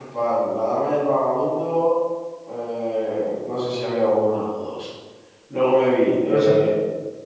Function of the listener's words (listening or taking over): listening